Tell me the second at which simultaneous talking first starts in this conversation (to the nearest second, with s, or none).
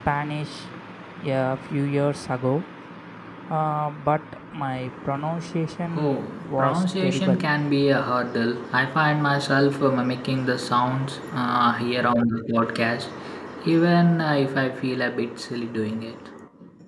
6 s